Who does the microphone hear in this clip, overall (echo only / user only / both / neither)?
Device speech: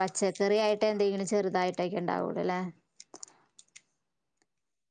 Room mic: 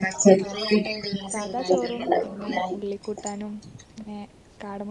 both